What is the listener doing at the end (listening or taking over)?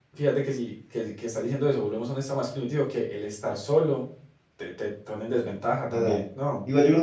taking over